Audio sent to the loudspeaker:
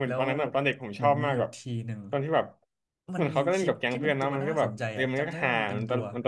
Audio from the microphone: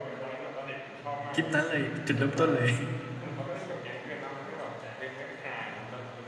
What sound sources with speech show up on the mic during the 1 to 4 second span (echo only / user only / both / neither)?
both